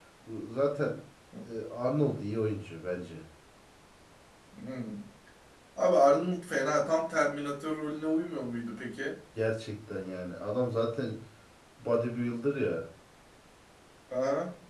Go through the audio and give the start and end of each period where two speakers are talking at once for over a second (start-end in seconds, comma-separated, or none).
none